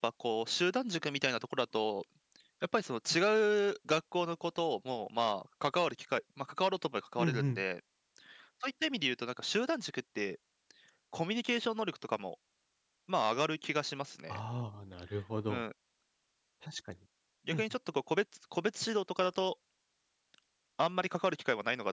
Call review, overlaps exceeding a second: none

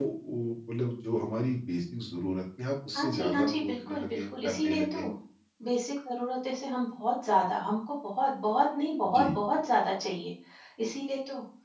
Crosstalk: present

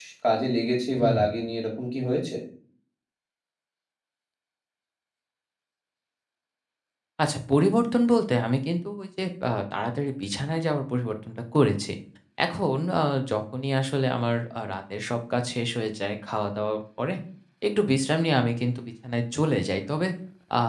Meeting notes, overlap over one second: none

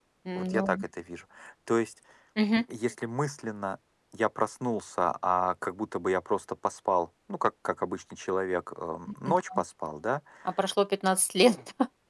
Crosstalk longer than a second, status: none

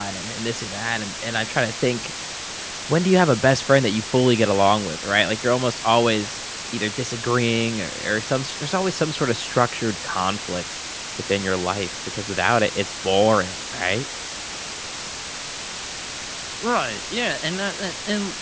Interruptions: none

